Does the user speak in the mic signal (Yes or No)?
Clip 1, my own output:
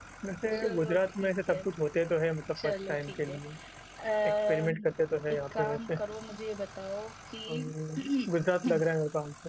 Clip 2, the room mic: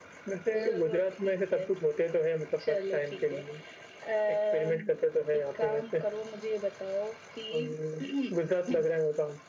No